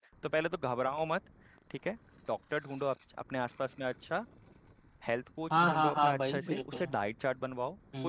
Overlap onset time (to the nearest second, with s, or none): 6 s